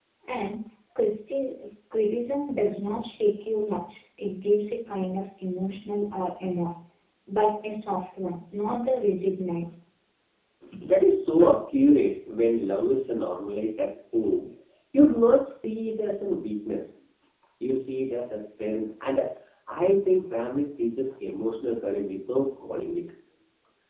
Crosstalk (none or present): none